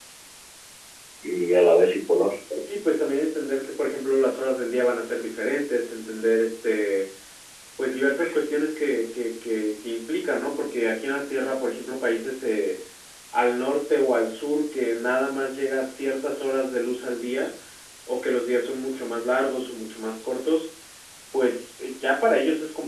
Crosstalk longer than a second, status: none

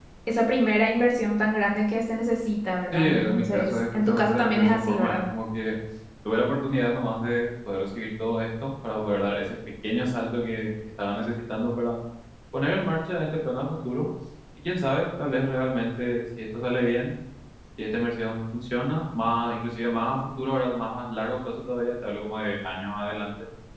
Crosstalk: present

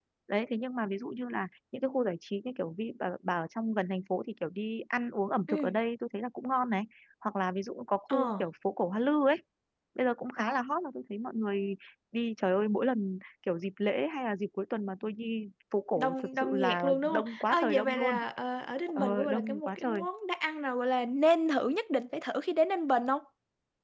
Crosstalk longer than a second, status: present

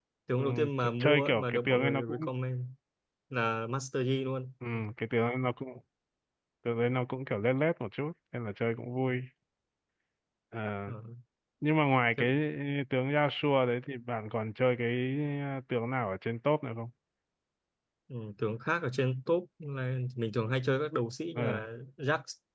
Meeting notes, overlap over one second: present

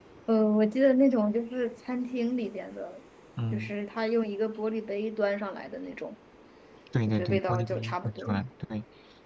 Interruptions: present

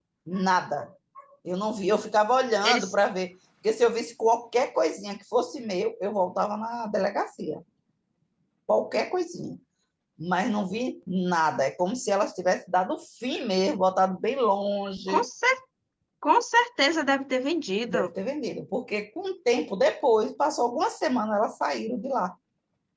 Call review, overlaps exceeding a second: none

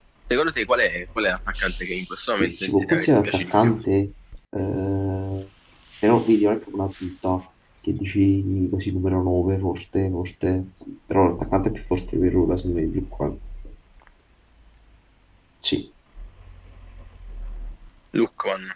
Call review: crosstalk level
present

